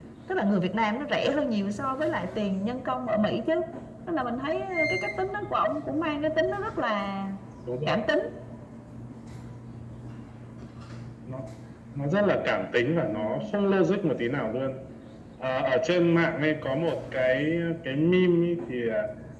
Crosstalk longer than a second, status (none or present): none